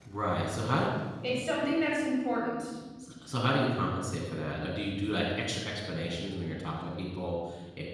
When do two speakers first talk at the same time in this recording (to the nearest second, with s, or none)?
none